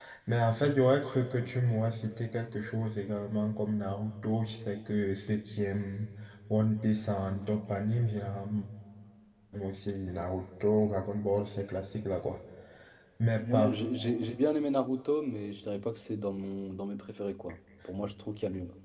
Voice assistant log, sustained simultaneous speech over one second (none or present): none